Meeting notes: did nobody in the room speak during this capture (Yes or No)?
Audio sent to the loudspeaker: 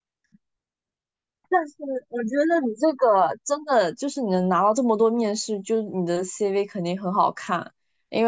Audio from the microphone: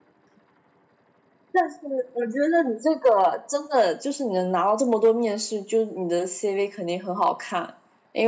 Yes